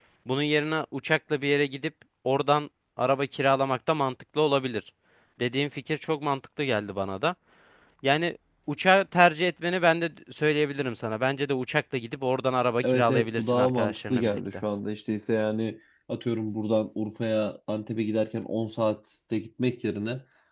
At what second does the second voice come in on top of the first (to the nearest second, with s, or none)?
13 s